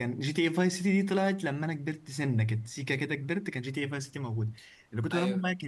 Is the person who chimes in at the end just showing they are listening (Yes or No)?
Yes